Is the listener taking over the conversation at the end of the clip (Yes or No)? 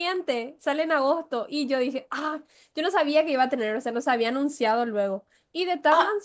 No